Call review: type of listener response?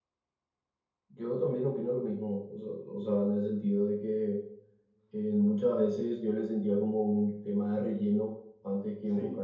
listening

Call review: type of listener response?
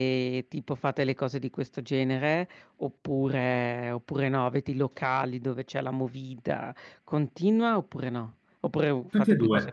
taking over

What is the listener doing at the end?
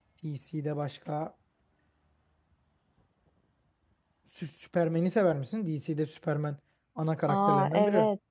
taking over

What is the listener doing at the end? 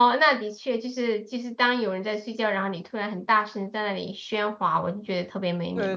taking over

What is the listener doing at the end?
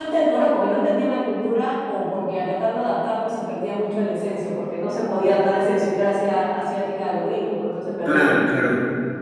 taking over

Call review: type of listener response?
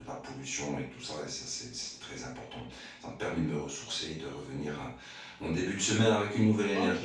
taking over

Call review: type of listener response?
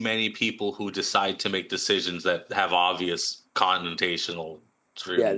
taking over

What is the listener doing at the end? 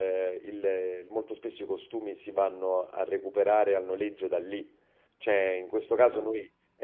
listening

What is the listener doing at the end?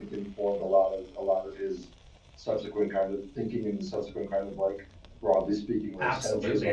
taking over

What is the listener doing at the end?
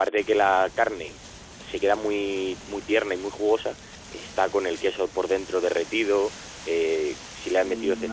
listening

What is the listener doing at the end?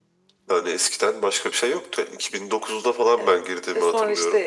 taking over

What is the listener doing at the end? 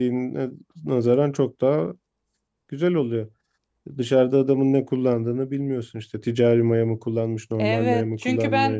taking over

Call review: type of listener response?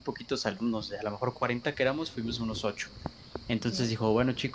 listening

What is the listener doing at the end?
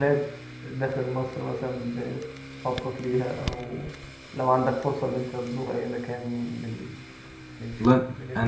taking over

